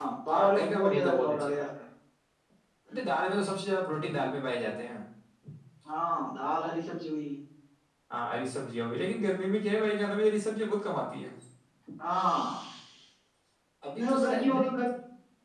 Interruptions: present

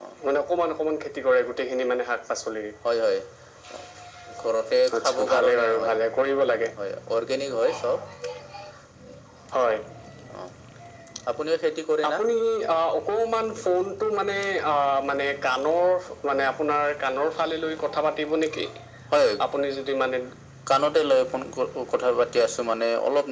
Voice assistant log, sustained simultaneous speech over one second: present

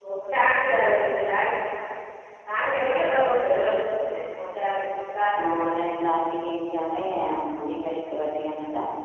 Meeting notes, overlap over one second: none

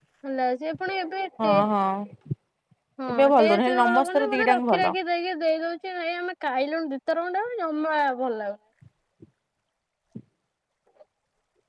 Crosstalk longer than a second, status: present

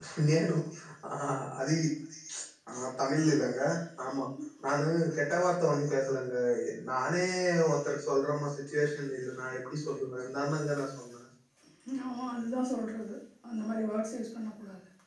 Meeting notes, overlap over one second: none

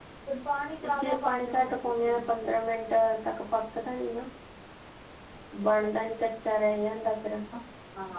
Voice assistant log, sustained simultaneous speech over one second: present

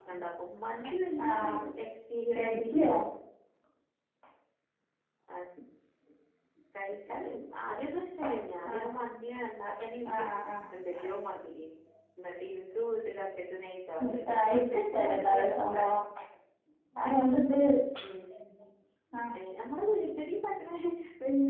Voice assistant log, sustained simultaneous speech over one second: present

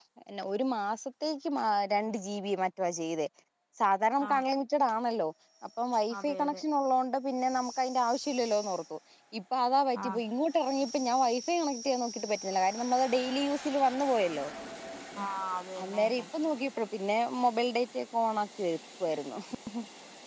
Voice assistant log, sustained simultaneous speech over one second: none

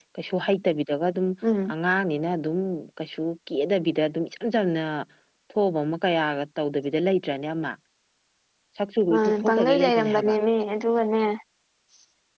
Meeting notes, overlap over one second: present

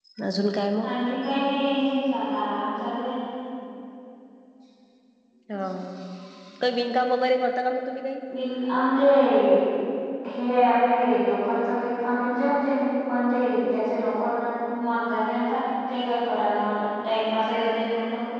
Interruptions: none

